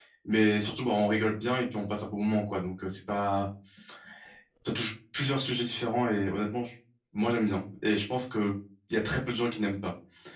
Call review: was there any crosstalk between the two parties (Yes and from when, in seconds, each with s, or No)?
No